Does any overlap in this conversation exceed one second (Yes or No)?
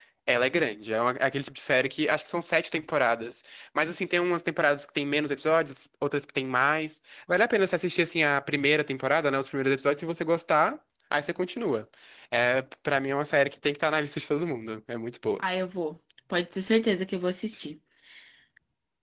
No